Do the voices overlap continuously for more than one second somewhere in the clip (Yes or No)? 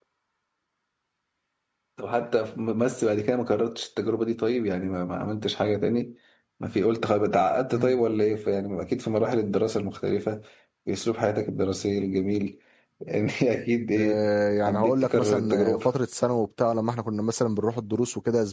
Yes